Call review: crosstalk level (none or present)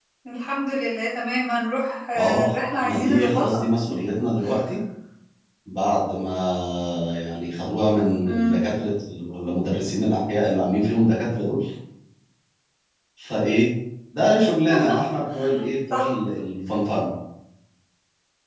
present